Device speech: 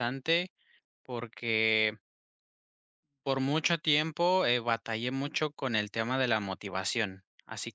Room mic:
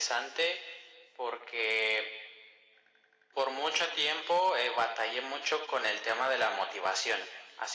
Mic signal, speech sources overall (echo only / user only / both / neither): echo only